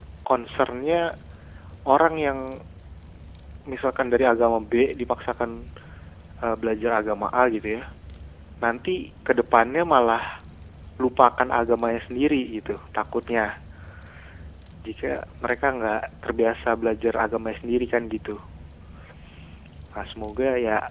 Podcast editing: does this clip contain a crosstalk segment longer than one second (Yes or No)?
No